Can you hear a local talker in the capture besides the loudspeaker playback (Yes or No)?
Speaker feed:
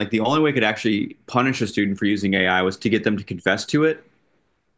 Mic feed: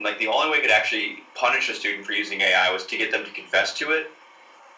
No